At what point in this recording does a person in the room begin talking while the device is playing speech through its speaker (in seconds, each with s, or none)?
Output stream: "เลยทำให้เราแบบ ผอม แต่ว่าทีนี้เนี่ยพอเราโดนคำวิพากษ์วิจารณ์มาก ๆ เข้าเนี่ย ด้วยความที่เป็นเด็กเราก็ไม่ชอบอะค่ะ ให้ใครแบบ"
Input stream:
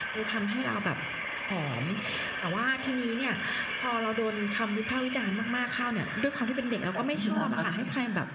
6.9 s